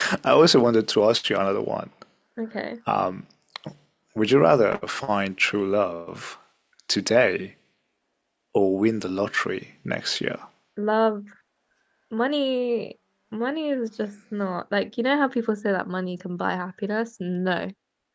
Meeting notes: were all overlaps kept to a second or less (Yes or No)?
Yes